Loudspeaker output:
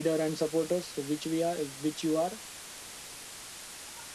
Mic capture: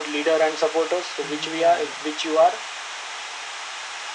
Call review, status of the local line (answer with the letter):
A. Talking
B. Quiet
A